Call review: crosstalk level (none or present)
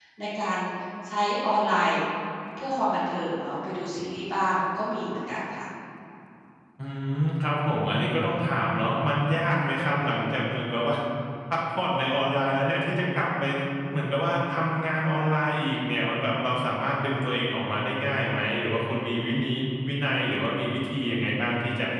none